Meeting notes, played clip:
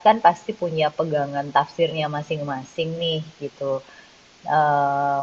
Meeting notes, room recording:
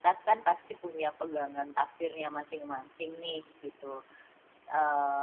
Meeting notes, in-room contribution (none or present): none